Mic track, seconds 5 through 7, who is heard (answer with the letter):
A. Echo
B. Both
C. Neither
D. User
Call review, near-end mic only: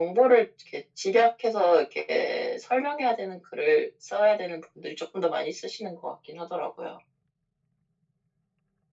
A